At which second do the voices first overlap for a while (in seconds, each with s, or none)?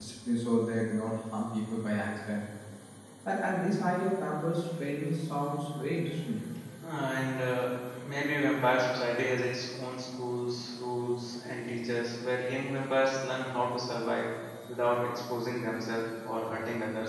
none